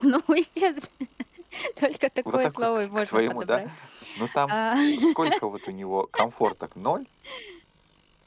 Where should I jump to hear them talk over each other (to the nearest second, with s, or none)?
2 s